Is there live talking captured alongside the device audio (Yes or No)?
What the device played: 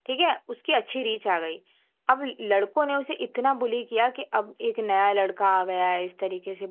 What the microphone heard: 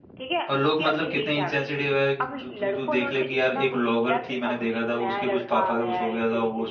Yes